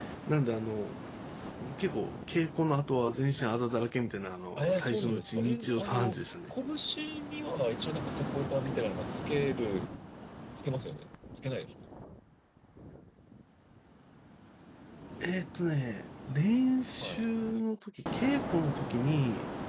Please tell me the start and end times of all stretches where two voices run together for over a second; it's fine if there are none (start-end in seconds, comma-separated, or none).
4.6-6.2